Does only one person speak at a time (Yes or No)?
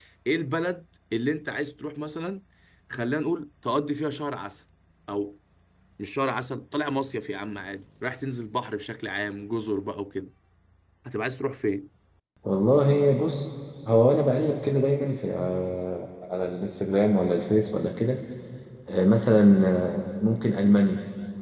Yes